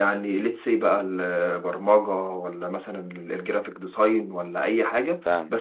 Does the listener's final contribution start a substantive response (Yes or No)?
No